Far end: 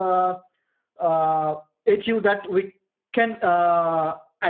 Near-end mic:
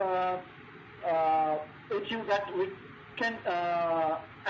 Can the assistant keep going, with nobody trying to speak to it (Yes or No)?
Yes